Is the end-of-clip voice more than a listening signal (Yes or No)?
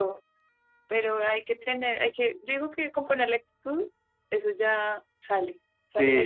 Yes